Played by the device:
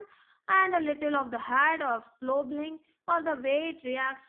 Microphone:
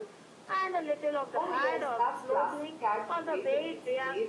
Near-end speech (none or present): present